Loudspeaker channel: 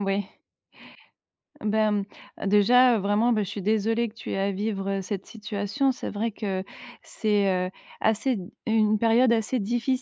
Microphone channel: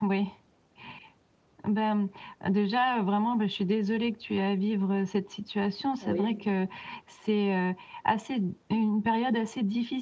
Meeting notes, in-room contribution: present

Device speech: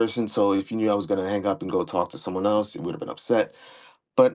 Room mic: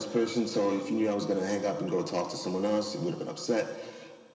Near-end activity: none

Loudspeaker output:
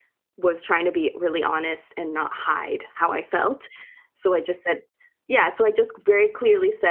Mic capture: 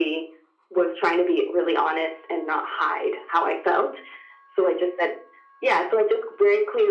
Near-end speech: none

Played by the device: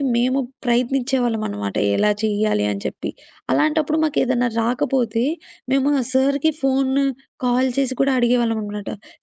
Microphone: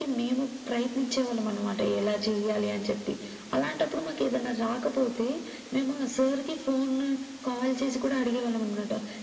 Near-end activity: none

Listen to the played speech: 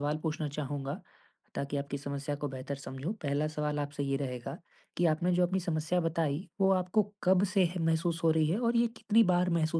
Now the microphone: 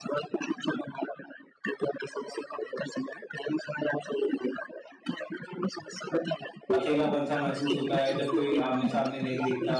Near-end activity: present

